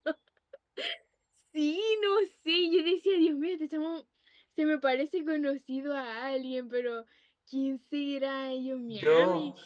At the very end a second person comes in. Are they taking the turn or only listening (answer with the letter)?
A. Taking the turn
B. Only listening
B